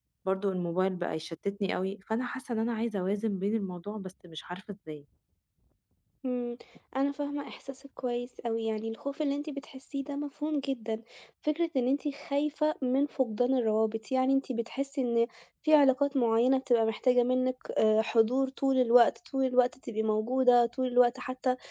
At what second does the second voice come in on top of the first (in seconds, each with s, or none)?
none